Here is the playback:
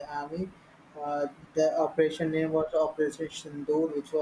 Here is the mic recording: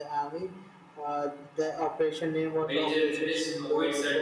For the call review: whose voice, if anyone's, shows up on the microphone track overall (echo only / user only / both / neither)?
both